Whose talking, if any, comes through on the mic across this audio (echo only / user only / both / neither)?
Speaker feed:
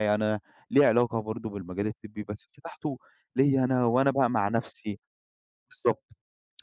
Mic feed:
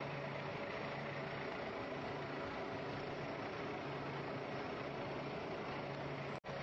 neither